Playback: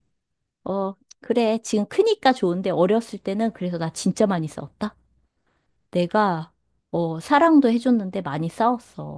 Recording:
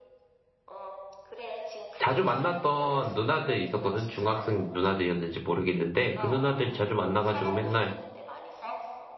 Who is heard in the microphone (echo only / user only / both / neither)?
both